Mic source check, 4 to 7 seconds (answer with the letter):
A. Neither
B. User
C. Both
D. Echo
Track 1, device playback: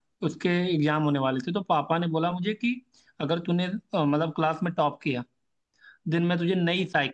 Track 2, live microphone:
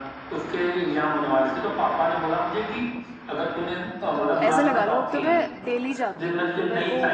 C